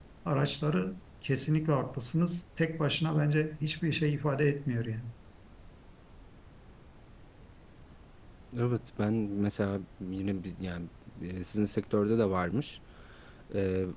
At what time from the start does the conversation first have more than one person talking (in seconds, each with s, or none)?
none